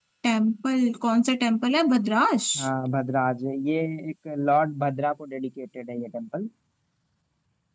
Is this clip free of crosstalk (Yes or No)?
Yes